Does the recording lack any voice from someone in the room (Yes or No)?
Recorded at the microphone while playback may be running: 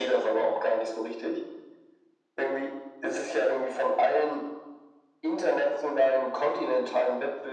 Yes